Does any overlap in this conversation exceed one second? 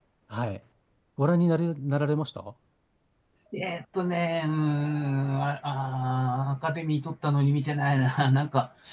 No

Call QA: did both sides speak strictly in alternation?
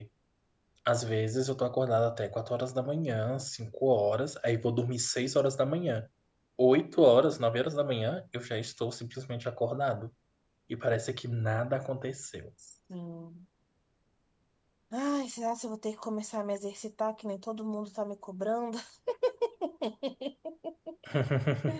Yes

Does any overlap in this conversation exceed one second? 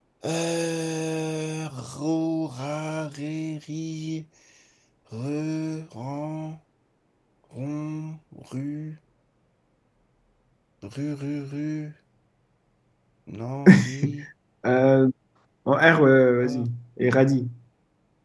No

